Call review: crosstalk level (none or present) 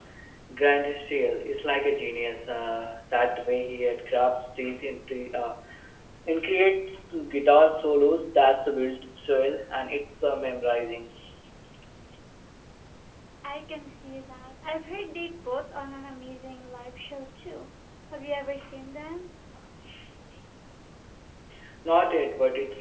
none